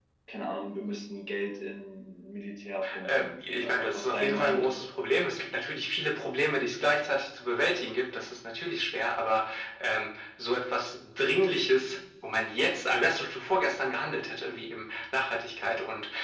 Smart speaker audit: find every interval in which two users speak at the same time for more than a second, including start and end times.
3.0-4.8

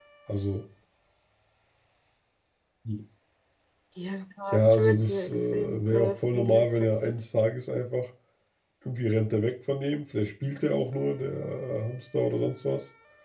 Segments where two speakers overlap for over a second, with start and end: 4.5-7.2

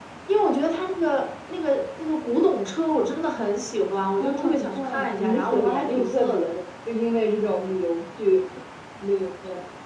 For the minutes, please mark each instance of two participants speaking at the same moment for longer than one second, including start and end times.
4.2-6.5

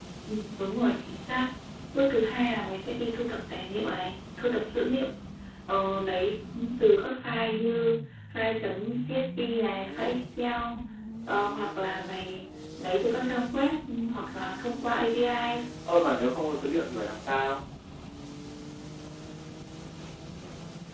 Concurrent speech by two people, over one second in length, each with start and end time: none

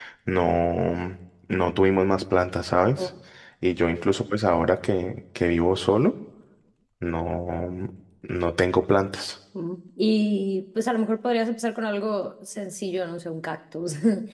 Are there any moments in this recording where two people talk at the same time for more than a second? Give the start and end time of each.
none

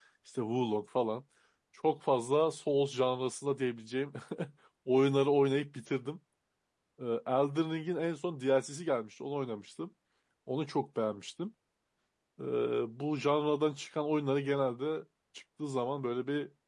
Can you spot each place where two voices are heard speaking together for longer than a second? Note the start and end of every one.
none

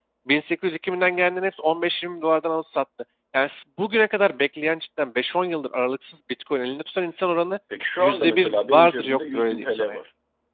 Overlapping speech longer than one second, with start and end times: 8.0-10.0

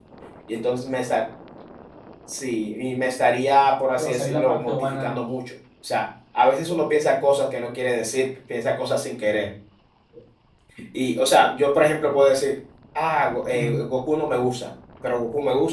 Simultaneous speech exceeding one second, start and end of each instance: 4.0-5.2

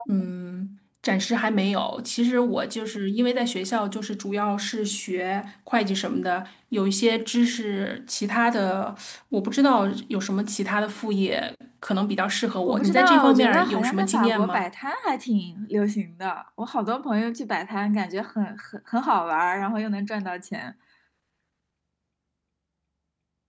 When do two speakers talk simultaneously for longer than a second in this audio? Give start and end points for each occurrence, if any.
12.7-14.7

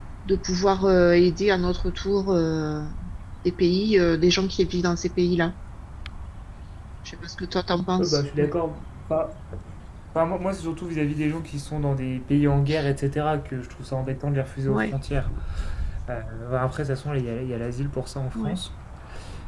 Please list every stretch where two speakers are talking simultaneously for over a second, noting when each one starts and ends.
none

